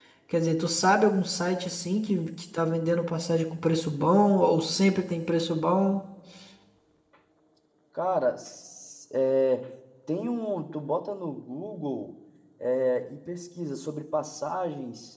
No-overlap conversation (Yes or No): Yes